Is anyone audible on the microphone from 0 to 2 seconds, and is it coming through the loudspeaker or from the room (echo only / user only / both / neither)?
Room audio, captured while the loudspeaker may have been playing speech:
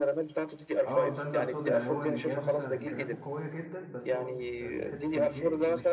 both